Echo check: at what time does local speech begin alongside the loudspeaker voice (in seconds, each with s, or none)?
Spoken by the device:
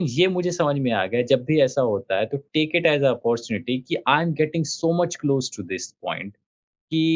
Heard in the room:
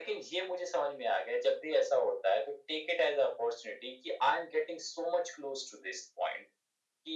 none